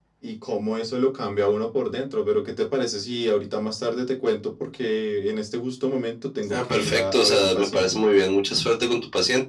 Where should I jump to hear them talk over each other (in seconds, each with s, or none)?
6.5 s